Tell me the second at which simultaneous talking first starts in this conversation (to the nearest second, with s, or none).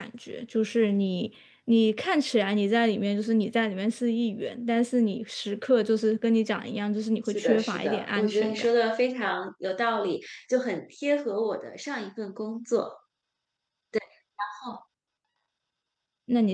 7 s